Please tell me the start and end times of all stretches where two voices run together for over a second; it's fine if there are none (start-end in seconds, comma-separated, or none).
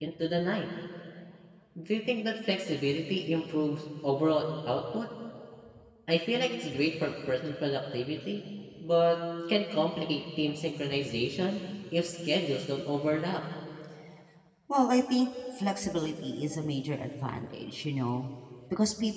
none